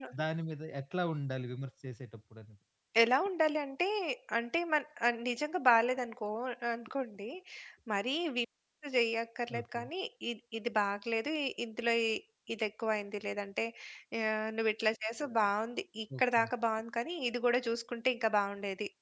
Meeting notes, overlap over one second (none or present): none